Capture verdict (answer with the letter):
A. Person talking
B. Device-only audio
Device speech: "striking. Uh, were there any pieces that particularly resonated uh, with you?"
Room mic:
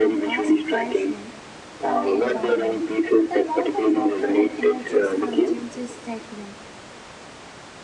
A